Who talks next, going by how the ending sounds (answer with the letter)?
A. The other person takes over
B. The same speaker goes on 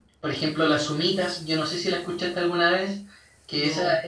B